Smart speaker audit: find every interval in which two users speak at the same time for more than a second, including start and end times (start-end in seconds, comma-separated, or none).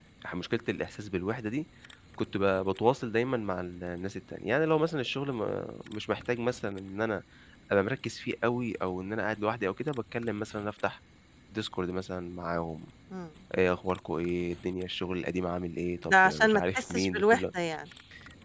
16.1-17.5